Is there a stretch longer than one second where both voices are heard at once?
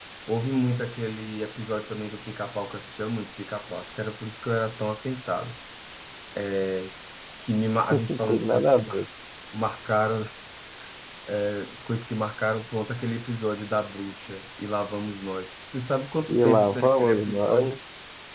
Yes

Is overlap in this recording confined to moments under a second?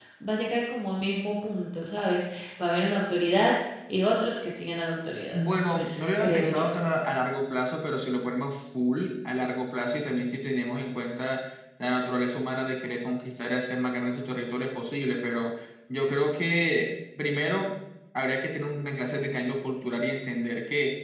No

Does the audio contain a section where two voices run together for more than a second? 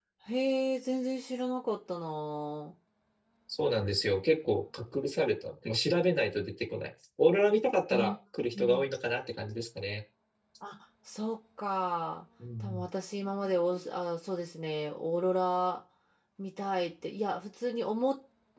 No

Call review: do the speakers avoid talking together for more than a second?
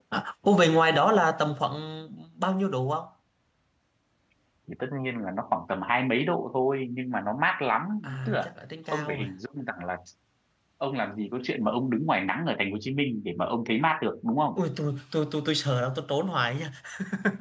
Yes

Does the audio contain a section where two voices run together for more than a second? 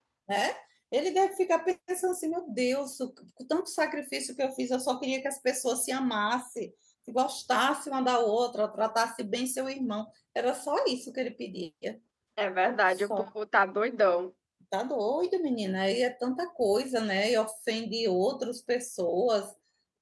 No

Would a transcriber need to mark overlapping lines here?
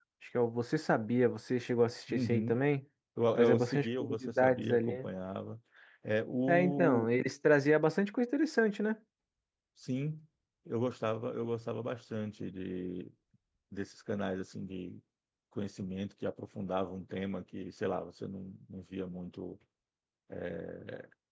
Yes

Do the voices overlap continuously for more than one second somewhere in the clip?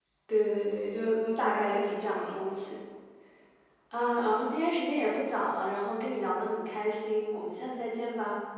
Yes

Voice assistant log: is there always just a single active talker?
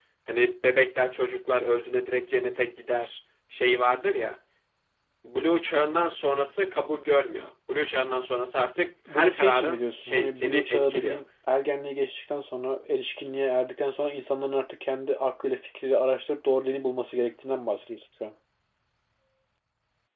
No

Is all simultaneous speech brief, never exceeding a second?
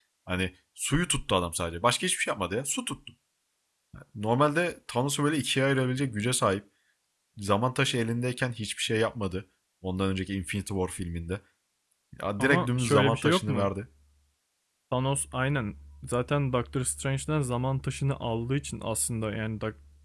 No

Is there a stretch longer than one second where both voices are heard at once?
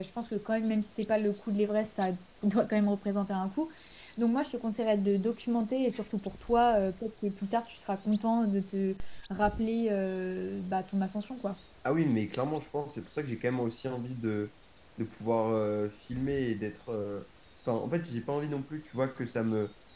No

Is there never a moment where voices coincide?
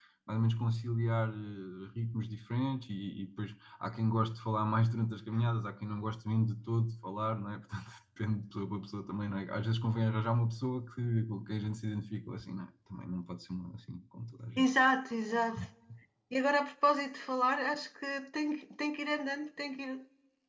Yes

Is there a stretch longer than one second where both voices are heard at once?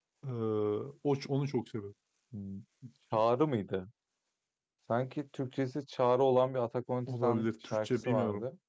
Yes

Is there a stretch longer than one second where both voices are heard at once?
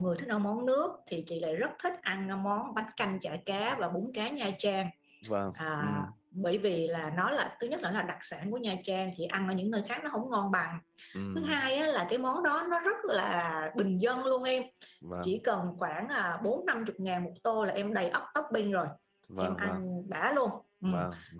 No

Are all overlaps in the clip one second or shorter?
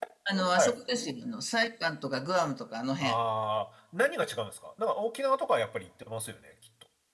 Yes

